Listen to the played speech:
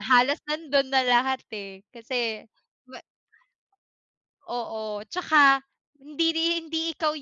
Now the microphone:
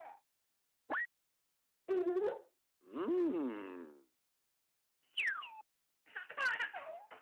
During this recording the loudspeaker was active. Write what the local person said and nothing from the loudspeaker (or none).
none